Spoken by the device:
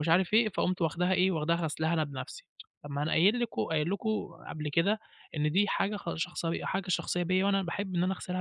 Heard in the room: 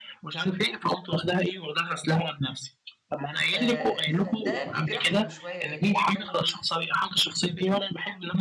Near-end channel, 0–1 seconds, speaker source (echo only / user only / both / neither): echo only